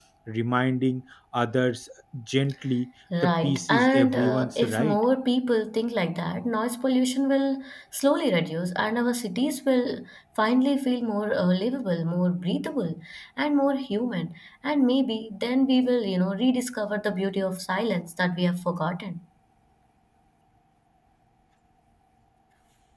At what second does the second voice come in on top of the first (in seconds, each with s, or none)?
3.1 s